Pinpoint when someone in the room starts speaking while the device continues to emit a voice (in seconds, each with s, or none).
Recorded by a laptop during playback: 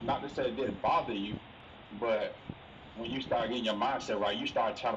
none